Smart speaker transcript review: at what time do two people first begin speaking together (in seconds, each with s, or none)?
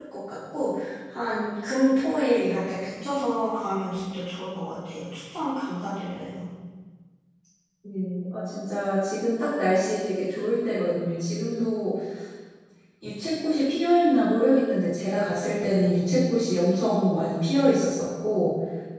none